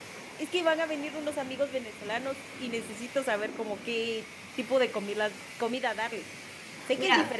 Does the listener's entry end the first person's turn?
No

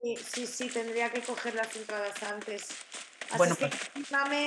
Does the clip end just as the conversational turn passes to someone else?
No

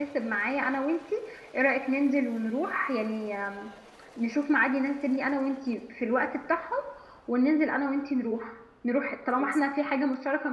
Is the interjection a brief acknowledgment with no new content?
Yes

